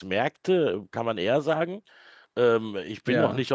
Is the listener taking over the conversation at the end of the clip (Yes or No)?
No